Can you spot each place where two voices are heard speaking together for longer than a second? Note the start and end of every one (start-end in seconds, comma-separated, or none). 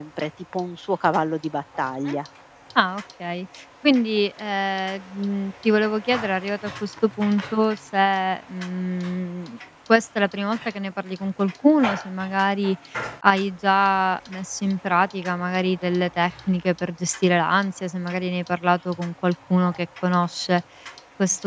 none